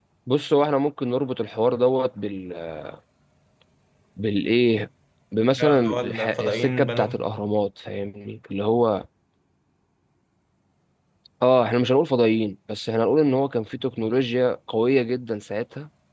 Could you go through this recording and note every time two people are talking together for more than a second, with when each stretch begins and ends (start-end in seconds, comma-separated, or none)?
5.6-7.3